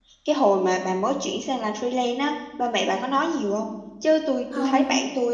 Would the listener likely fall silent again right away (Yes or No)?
Yes